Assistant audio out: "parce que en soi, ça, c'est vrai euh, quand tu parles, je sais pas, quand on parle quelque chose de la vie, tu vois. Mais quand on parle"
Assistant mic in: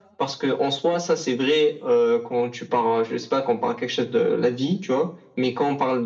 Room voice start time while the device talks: none

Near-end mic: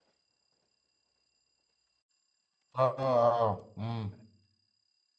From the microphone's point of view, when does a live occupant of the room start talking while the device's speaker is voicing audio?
2.8 s

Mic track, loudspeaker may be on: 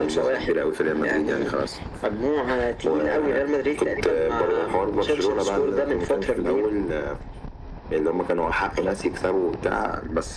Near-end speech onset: none

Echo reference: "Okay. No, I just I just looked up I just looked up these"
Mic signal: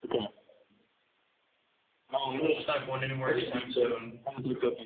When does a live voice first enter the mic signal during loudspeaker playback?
2.3 s

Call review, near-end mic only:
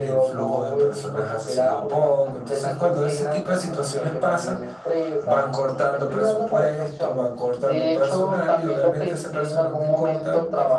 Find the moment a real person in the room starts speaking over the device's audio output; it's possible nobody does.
none

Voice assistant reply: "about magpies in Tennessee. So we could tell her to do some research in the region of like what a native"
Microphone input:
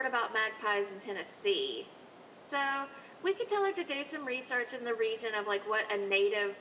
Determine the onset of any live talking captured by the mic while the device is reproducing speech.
none

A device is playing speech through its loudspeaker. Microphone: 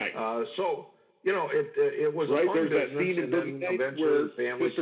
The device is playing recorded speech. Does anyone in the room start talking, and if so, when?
none

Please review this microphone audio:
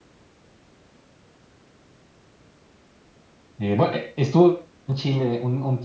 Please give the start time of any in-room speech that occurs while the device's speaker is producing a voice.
3.6 s

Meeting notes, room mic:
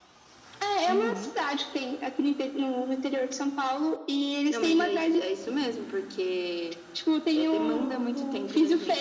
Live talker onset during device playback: 0.9 s

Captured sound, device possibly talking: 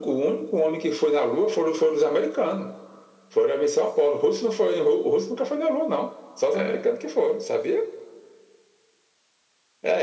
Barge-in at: 6.5 s

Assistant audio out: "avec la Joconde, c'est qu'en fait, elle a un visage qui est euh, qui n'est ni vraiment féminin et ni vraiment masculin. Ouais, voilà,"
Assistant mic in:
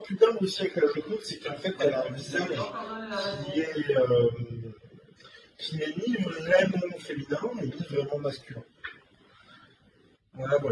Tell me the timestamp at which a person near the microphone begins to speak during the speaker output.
1.7 s

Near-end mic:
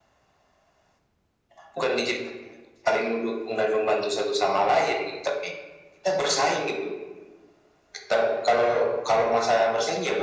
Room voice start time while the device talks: none

